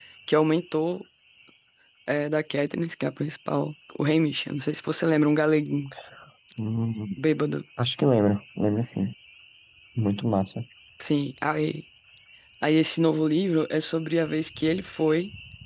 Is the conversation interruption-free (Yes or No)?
Yes